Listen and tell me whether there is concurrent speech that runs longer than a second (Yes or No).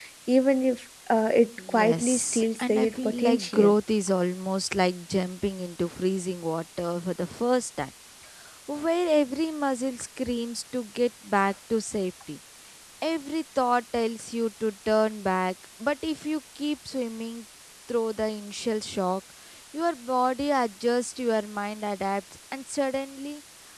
Yes